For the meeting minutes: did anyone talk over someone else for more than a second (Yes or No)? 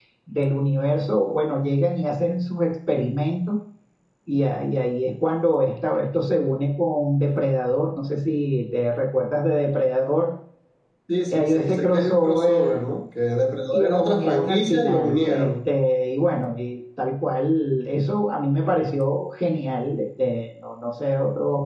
Yes